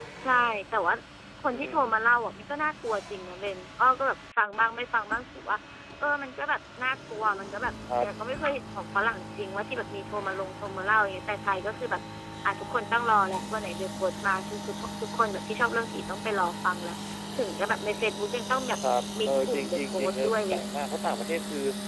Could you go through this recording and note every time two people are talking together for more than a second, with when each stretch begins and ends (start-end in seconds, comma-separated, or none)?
19.3-20.6